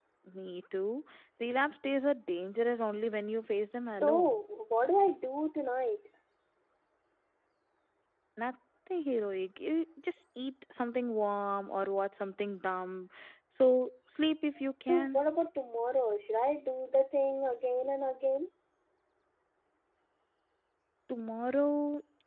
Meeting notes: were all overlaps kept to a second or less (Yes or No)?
Yes